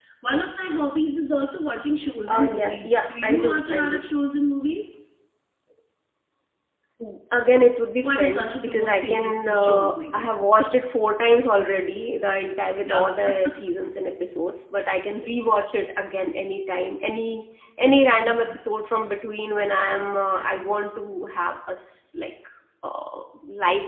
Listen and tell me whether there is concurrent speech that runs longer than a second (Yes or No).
Yes